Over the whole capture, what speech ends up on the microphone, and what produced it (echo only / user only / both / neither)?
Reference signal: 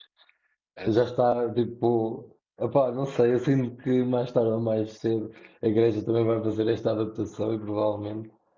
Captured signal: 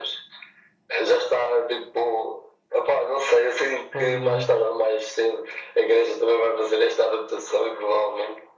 both